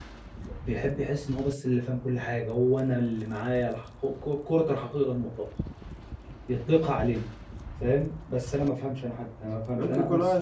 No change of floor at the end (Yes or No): No